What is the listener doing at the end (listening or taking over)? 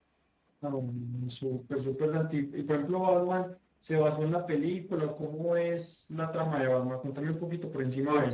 taking over